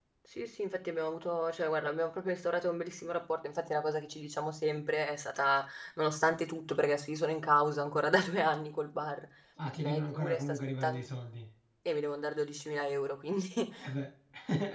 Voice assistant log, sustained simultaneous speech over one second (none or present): present